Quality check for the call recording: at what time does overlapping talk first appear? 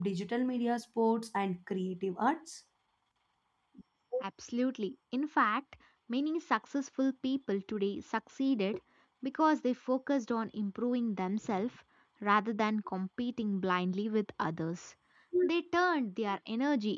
none

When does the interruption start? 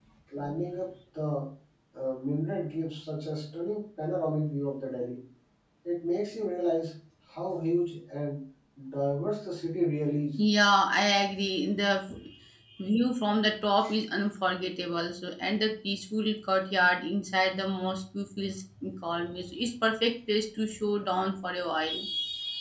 none

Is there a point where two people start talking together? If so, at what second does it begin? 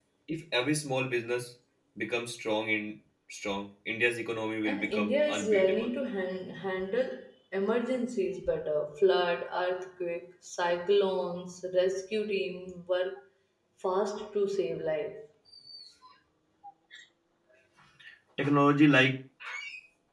4.6 s

